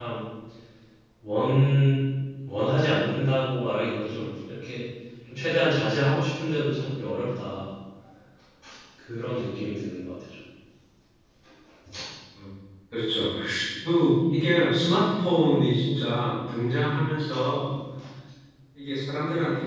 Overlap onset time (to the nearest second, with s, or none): none